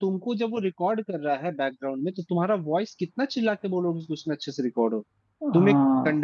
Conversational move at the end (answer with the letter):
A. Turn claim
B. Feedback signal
B